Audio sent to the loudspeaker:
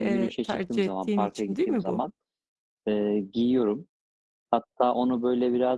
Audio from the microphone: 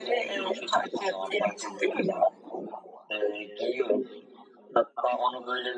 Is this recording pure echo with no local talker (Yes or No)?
No